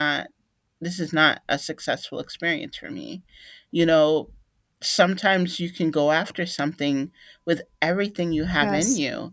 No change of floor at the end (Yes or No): Yes